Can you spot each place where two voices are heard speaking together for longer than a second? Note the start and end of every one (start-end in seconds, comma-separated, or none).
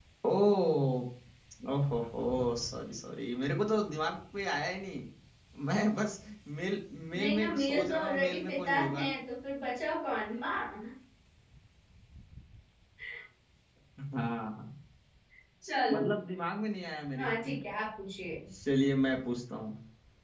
7.2-9.1